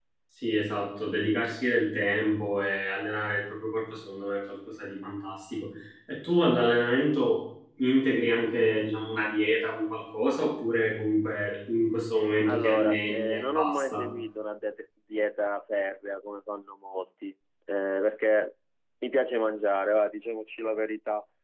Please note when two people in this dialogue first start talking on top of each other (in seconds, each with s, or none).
12.4 s